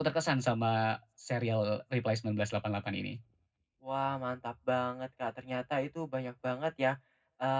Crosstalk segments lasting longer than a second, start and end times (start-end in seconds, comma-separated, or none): none